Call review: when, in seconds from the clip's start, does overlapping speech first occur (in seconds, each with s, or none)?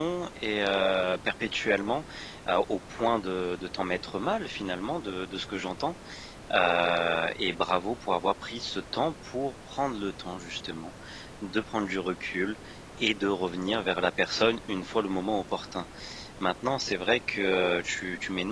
none